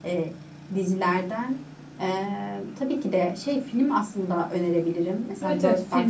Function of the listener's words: taking over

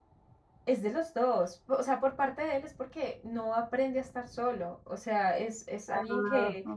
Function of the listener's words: listening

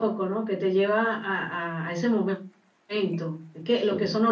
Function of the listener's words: listening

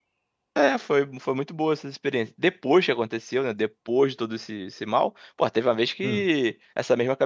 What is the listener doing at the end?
listening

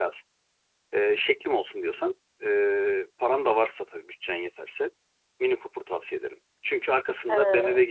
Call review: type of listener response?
listening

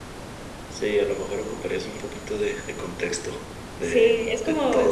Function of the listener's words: taking over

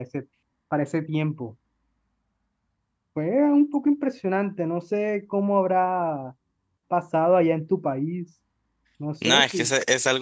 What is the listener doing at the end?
taking over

